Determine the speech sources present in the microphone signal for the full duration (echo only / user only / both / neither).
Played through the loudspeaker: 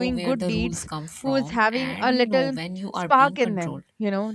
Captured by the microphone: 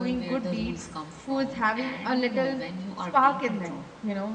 echo only